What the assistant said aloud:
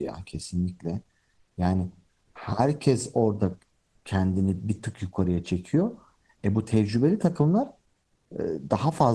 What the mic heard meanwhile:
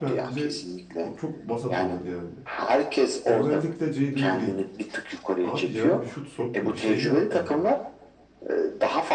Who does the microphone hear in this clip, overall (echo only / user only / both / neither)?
both